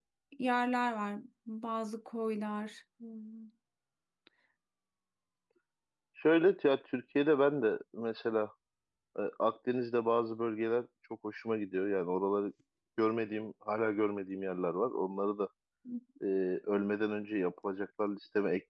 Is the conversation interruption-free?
Yes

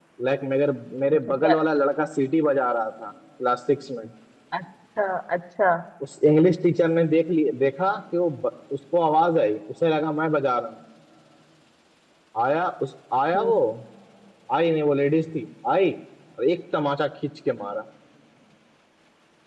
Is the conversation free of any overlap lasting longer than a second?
Yes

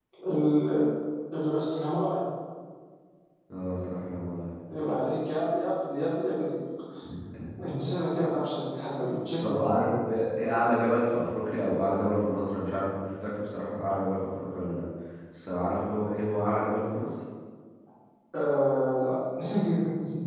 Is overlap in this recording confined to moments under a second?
Yes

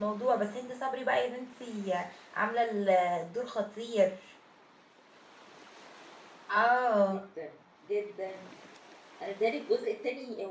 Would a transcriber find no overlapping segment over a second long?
Yes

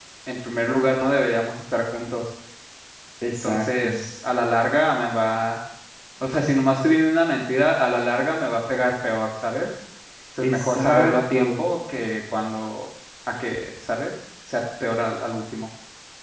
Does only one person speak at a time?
No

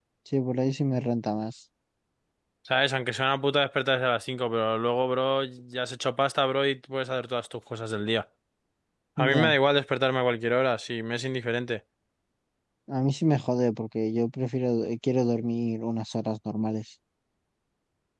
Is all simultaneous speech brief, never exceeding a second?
Yes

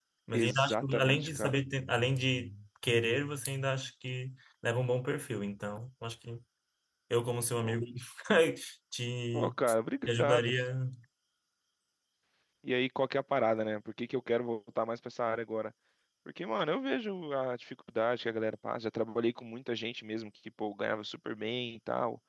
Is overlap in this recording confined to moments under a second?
No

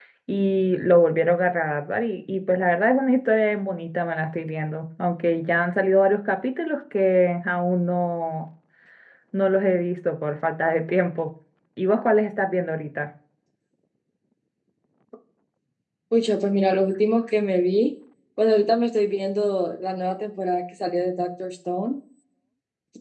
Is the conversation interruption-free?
Yes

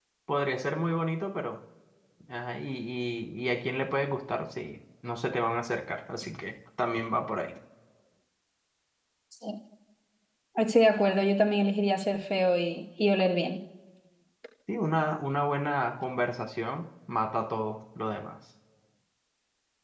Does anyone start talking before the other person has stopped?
No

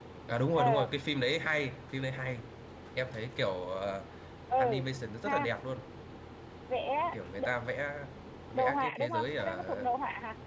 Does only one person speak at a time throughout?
No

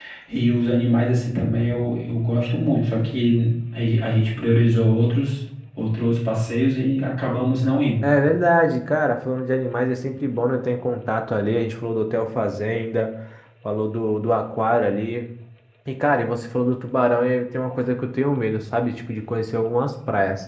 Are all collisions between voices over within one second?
Yes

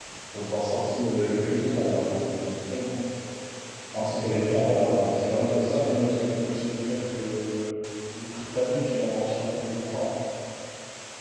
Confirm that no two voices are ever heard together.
No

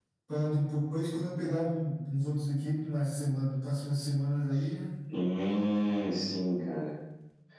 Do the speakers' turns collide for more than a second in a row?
No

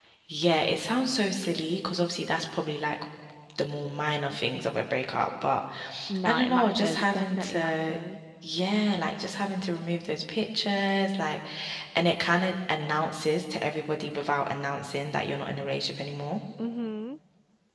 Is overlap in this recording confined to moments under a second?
No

